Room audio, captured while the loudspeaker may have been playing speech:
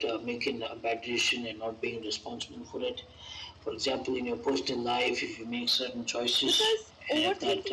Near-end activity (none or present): present